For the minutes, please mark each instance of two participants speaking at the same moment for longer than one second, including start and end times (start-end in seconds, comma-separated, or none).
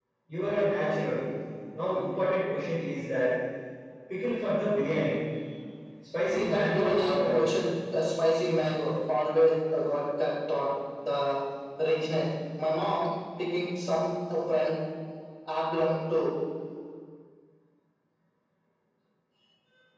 6.3-7.6